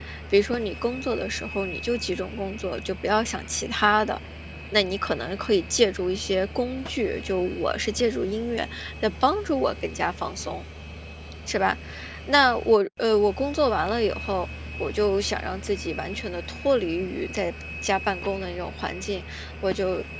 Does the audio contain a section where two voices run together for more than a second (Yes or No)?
No